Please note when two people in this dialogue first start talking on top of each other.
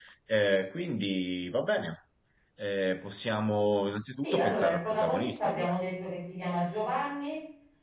4 s

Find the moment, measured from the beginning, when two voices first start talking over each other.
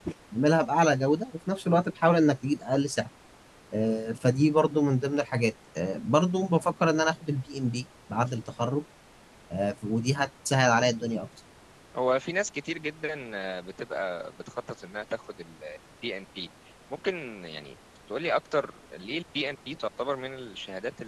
none

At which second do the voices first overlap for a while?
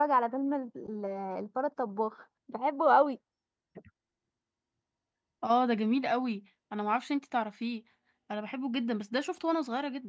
none

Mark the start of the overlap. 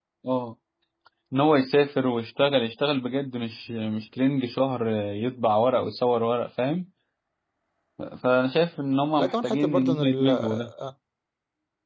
9 s

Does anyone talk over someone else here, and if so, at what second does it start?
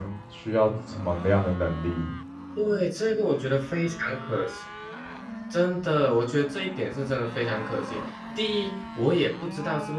none

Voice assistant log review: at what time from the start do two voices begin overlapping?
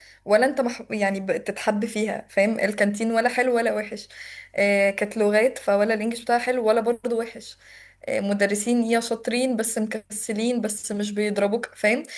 none

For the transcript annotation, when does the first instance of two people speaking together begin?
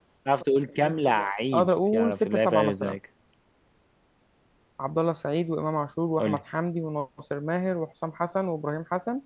2 s

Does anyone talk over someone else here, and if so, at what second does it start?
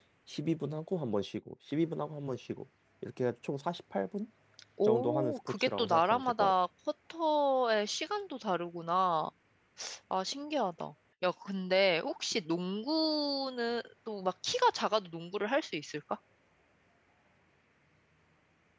5 s

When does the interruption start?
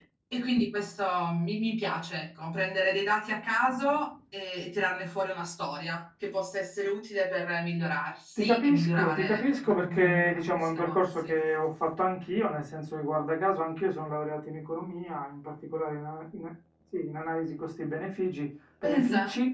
8 s

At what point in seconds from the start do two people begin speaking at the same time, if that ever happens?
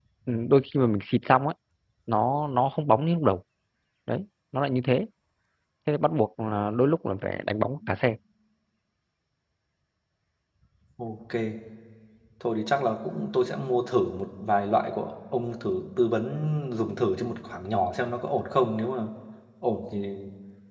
none

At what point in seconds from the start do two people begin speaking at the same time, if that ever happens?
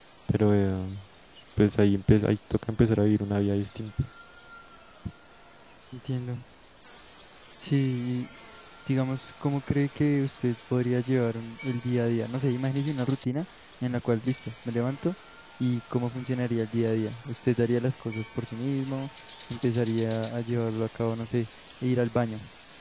none

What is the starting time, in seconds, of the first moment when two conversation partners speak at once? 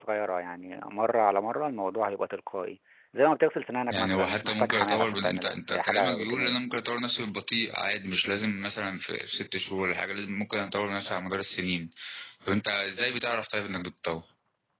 4 s

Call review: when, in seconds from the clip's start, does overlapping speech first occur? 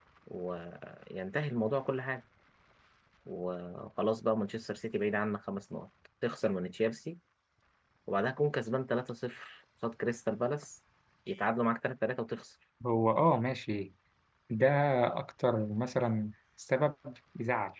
none

